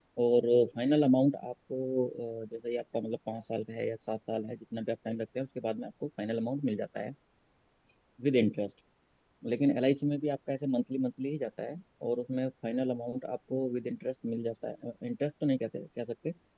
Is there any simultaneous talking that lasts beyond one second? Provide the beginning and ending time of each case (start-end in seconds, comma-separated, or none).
none